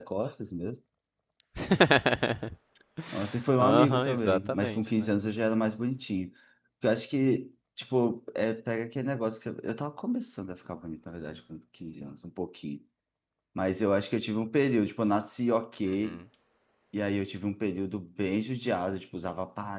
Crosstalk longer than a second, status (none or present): present